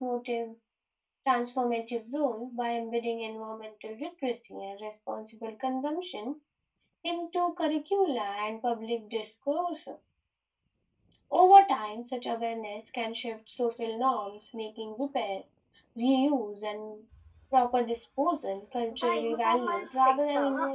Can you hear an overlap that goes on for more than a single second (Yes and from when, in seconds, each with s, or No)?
Yes, from 18.9 s